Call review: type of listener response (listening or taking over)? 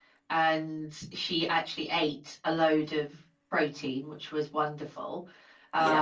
listening